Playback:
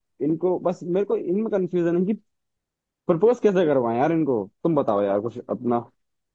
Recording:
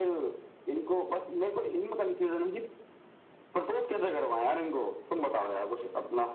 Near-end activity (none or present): none